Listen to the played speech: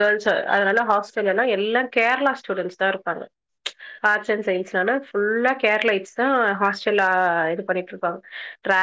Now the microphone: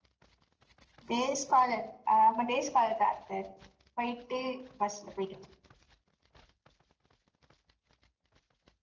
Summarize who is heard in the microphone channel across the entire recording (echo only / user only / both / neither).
user only